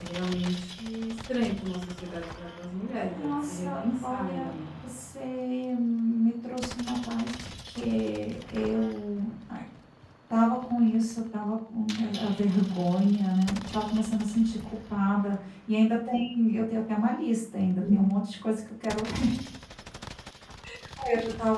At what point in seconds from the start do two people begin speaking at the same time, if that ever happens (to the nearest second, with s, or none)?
3 s